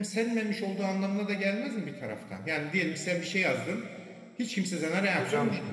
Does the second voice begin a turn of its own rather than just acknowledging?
Yes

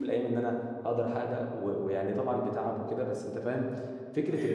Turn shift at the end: No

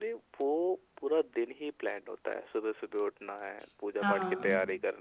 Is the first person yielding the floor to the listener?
No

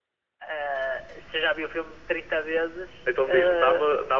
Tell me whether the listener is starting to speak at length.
Yes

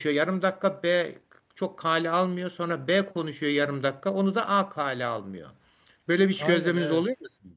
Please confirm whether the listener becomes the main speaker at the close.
Yes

